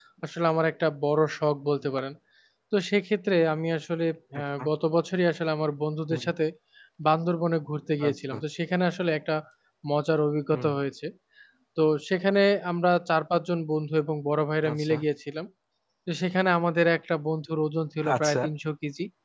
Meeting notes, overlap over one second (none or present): none